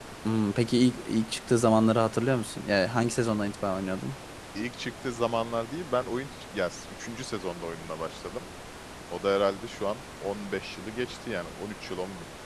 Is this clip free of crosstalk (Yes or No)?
Yes